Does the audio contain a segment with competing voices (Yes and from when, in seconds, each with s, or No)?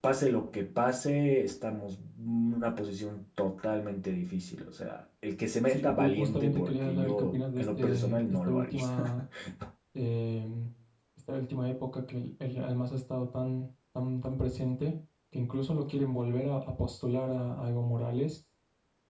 Yes, from 5.7 s